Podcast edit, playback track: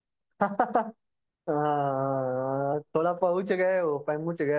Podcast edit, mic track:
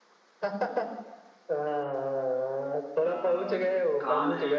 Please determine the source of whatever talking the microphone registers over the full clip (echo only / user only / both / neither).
both